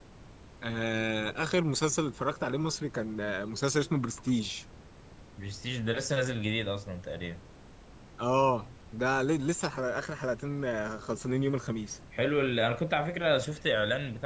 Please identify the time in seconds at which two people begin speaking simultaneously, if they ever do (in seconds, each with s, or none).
none